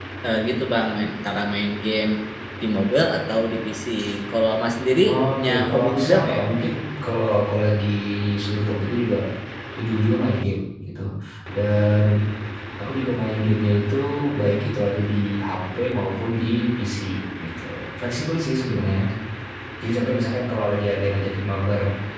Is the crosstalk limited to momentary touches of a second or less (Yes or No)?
No